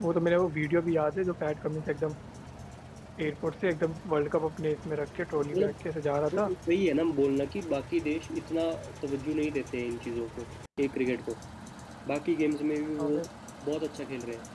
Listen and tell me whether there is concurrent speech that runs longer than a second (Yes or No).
No